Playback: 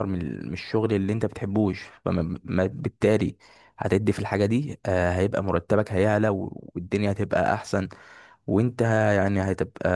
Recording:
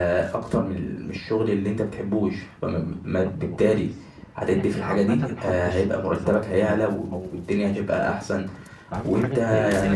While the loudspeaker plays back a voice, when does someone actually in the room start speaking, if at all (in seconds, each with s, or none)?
2.8 s